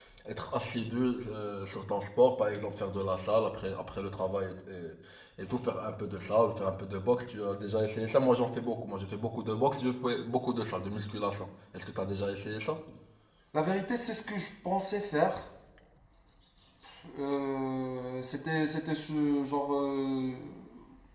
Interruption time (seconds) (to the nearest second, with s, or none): none